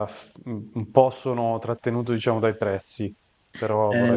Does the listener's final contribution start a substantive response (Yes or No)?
Yes